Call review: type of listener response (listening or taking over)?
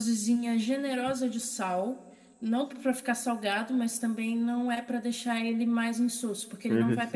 listening